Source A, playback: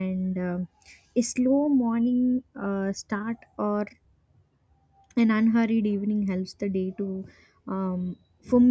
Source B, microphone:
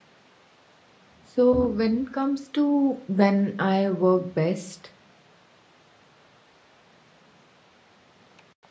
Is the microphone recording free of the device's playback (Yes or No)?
Yes